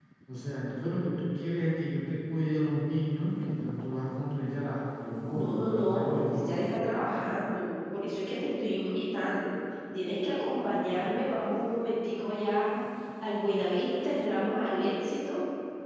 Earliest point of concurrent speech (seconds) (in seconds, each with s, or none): 5.3 s